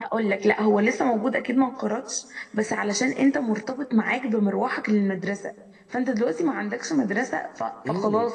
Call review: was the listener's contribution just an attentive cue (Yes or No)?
No